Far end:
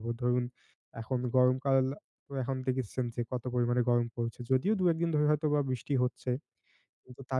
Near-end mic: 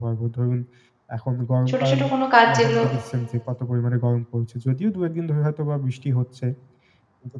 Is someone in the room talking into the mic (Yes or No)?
Yes